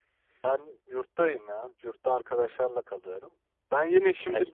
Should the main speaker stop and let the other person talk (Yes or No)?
No